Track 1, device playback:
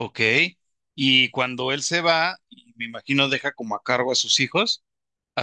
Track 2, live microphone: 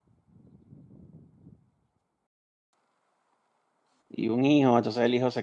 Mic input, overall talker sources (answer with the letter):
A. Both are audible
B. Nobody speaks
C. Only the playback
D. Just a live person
D